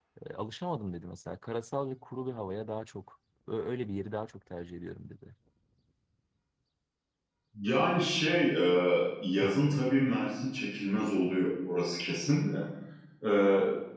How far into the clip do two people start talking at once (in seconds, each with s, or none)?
none